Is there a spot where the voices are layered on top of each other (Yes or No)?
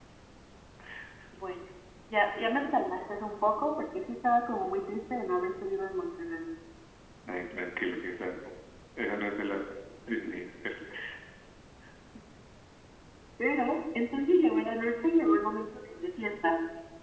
No